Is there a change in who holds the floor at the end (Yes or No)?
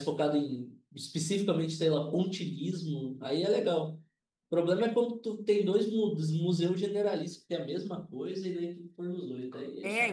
Yes